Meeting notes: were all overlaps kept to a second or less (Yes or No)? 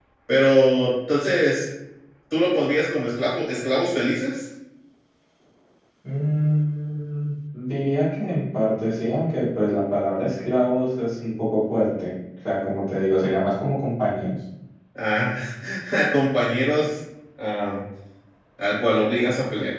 Yes